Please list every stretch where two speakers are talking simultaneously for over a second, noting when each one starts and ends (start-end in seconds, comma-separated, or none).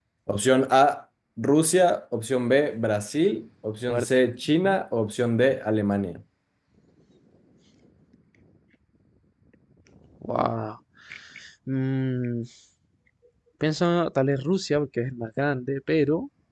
none